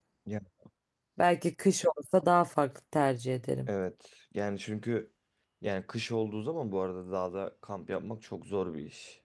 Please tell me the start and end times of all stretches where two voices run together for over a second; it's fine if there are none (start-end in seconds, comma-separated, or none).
none